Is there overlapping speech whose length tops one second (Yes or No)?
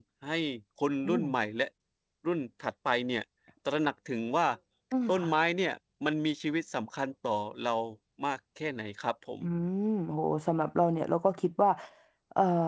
No